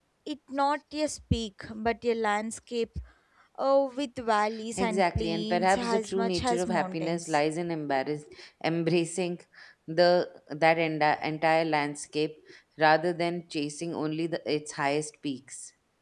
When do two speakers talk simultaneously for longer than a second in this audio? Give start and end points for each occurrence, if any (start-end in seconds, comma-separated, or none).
4.8-7.4